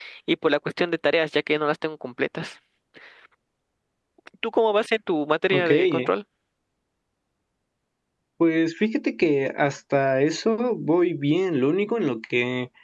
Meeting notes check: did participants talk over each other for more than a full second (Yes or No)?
No